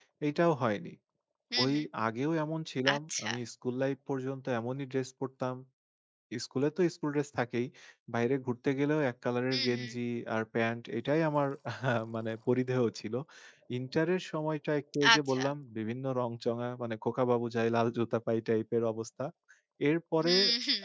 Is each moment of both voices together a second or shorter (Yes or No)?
Yes